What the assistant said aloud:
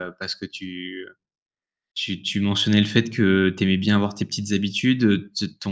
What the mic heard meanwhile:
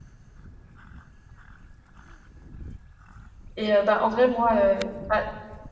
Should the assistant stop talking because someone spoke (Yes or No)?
Yes